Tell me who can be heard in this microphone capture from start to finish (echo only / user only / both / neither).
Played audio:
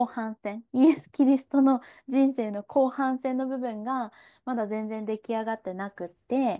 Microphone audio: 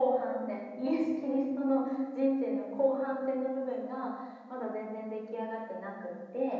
echo only